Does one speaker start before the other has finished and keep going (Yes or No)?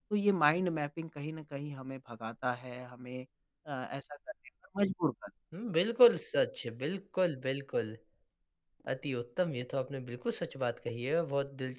No